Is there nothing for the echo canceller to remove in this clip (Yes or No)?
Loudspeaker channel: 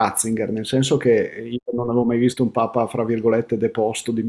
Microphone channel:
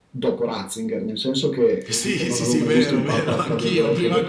No